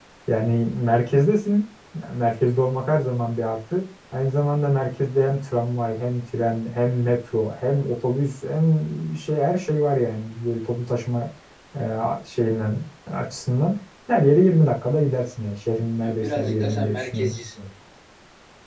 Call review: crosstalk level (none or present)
present